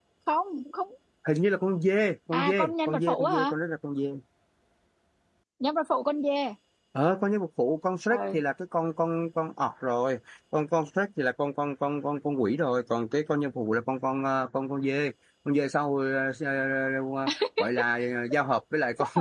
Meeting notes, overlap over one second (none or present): present